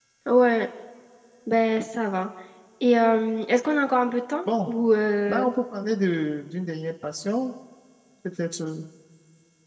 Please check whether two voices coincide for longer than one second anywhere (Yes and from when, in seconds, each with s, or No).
No